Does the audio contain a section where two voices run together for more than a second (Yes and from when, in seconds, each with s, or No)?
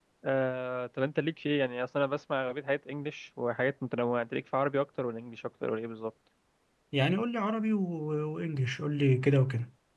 No